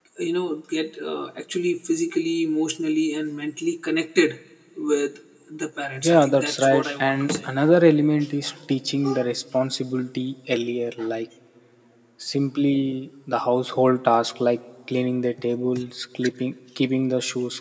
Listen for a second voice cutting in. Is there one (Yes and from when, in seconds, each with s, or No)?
Yes, from 6.0 s